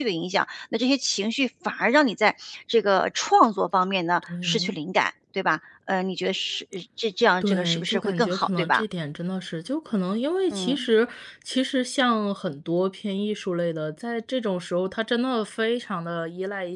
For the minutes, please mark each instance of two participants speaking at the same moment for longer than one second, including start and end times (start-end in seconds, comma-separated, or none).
7.4-8.8